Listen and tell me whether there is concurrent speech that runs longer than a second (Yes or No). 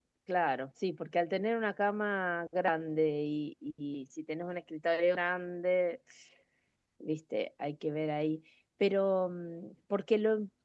No